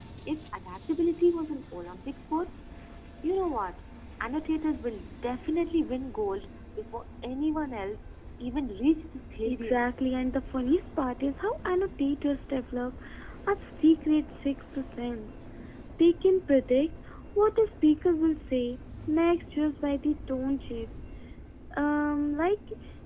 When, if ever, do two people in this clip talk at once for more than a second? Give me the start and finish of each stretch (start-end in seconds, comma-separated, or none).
none